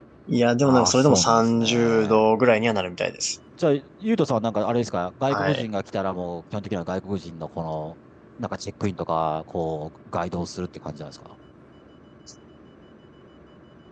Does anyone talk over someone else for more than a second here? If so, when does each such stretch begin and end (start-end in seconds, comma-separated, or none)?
0.6-2.2